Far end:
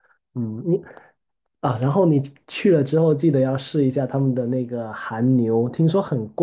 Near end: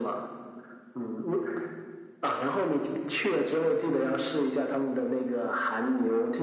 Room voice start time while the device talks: none

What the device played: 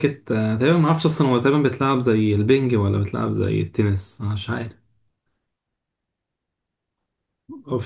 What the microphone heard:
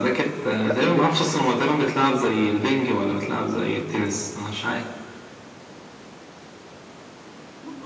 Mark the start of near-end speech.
0.6 s

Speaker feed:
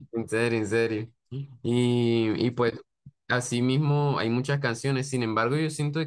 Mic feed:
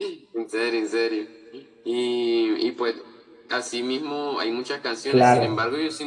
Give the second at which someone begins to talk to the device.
5.1 s

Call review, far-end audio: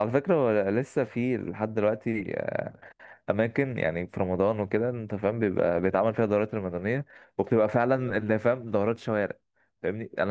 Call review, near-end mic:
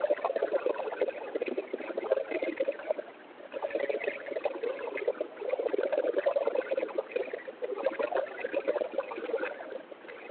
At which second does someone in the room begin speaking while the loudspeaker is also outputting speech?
none

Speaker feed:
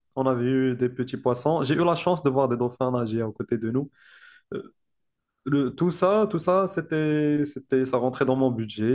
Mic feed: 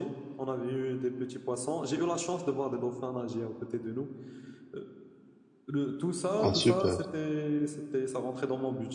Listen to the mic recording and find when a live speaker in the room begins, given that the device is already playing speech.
6.3 s

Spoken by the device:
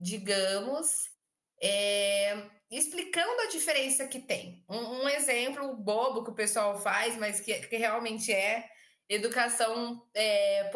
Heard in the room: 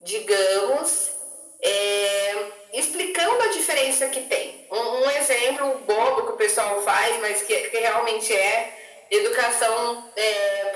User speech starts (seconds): none

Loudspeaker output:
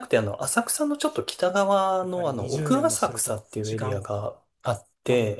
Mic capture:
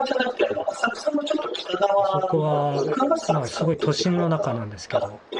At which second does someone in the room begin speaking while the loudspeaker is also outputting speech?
2.0 s

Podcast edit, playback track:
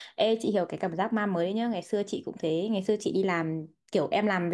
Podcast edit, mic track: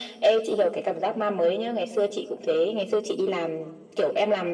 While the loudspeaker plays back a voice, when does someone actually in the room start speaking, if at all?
none

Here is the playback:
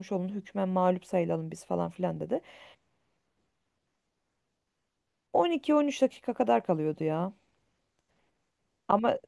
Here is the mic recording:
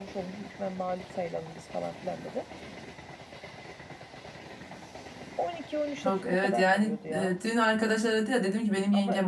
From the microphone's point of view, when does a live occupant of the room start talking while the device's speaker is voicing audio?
6.0 s

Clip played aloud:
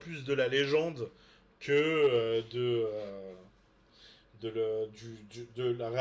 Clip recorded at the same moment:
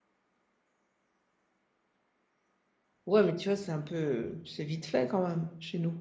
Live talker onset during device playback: 3.0 s

